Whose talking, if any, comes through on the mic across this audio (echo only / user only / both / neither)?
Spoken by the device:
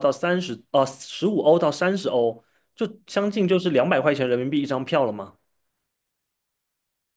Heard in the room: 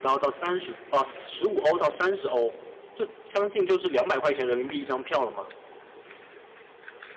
echo only